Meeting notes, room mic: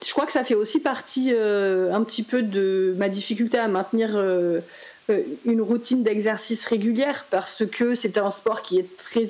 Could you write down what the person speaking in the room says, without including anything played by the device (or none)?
none